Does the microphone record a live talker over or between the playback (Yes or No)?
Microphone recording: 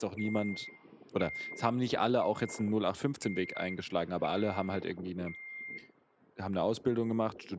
Yes